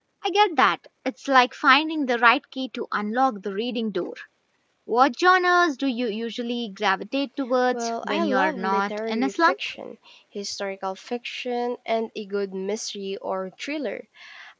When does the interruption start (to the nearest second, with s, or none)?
8 s